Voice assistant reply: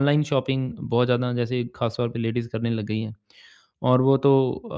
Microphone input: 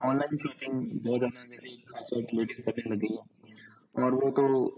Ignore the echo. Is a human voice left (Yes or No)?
No